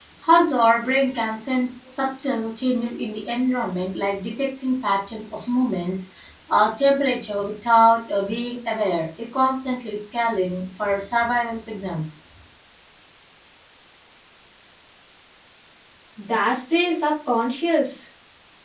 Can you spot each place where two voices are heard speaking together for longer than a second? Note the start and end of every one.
none

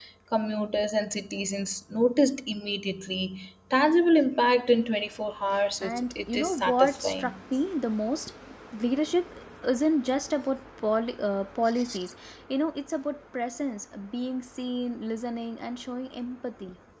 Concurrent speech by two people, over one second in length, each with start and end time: 5.8-7.4

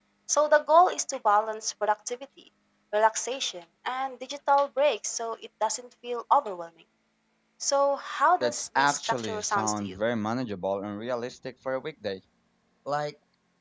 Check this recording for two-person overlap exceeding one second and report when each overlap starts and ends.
8.4-9.9

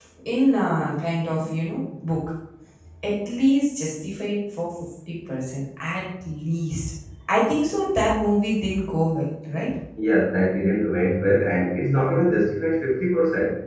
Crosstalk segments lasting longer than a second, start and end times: none

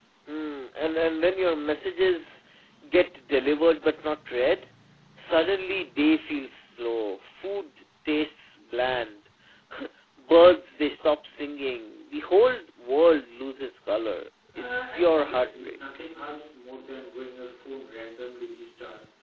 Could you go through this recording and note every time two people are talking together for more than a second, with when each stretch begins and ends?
14.6-15.8

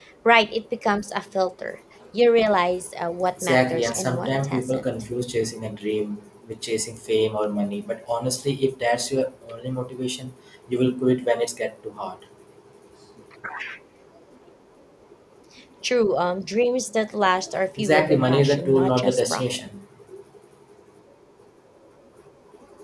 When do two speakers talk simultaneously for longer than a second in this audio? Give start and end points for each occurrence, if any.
3.4-4.8, 17.8-19.4

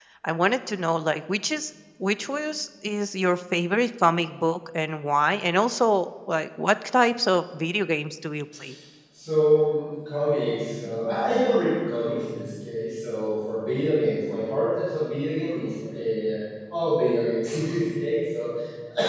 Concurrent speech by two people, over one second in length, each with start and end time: none

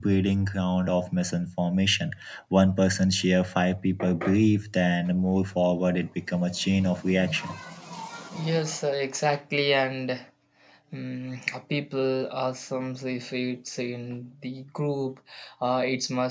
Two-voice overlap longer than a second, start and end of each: none

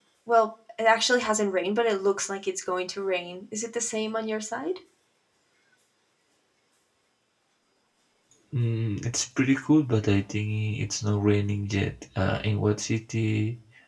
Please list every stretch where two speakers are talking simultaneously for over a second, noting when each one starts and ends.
none

